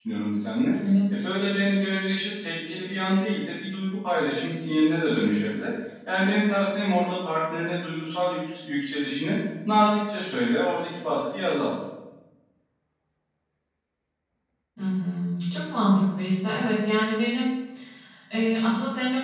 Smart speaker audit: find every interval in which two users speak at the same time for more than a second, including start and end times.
none

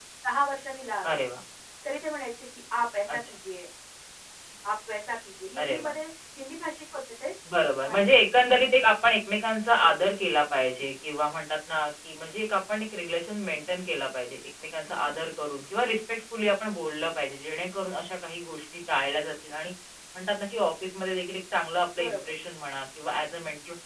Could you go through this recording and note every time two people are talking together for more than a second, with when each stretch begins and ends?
none

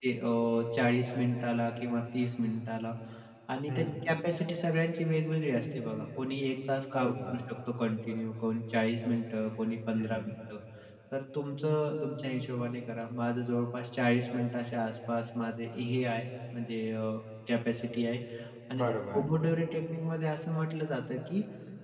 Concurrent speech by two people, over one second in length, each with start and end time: none

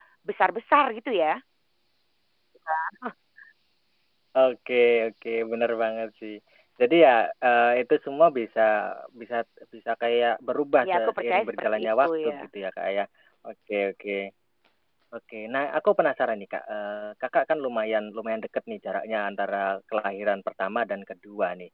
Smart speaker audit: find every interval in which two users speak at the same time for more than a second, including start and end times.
10.8-12.5

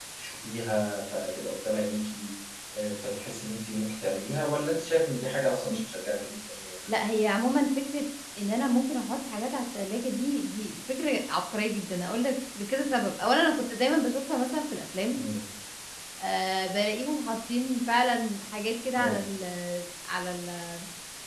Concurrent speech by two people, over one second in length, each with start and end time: none

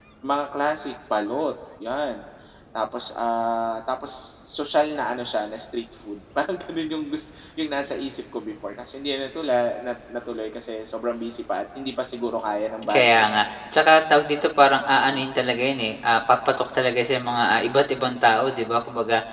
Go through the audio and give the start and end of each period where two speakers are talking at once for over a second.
none

